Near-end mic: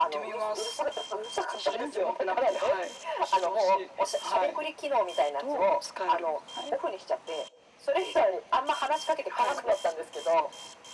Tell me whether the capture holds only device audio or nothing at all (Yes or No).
Yes